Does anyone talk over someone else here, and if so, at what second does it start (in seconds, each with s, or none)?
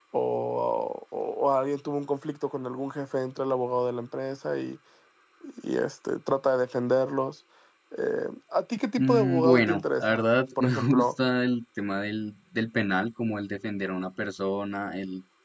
9.0 s